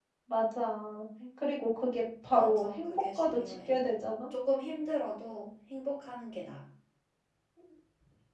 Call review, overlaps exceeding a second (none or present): present